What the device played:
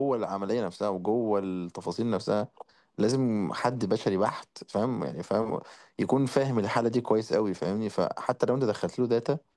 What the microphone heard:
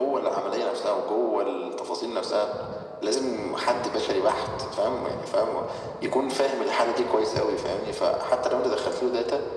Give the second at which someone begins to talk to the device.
none

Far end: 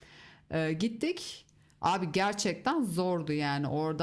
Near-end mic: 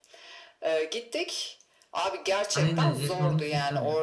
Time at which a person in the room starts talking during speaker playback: 2.5 s

